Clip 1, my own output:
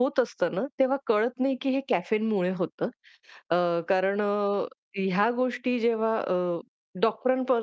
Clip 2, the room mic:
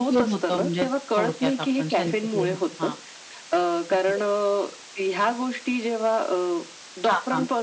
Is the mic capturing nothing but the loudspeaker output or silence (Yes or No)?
No